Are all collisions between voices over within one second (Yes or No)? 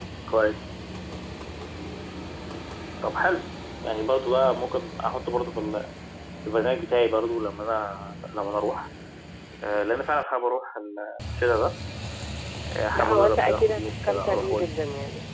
No